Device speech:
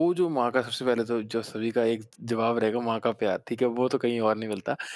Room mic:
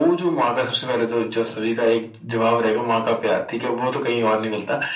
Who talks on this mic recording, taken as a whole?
echo only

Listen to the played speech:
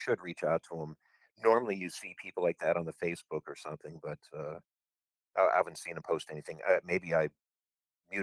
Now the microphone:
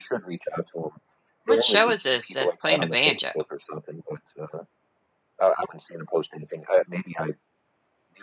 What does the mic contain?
both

